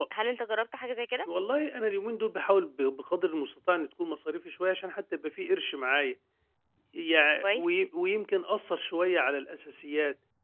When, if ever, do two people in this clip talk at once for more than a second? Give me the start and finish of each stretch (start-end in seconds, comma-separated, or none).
none